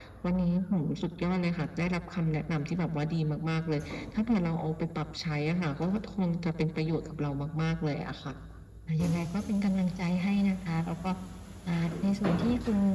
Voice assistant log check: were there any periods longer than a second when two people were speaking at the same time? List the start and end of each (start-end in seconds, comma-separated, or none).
none